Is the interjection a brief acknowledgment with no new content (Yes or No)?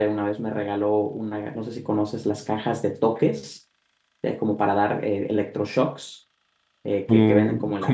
No